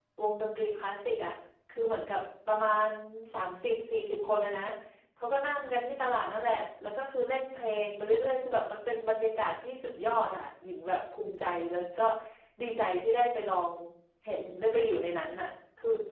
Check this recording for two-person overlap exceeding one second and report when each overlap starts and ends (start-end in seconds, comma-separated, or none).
none